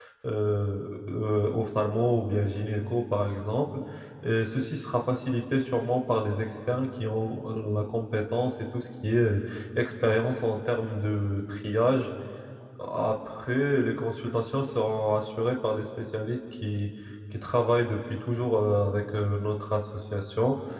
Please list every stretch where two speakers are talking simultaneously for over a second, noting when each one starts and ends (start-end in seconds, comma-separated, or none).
none